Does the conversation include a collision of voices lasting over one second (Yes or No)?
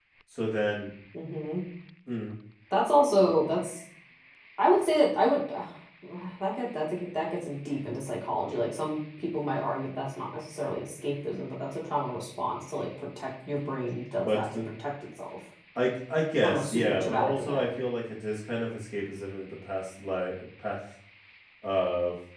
Yes